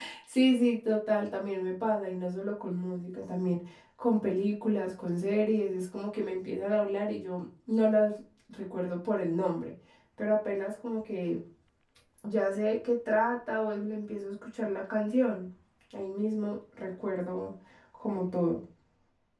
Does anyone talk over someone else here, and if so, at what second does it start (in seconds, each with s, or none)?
none